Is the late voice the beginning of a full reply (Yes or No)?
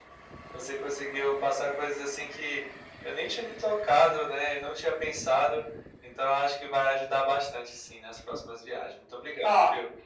Yes